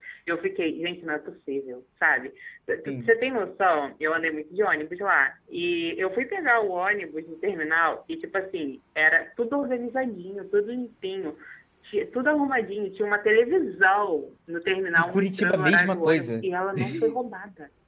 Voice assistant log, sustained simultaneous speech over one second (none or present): present